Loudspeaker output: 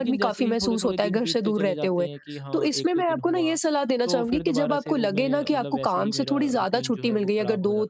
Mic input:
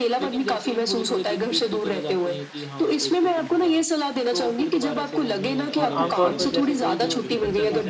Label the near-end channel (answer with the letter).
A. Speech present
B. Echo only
A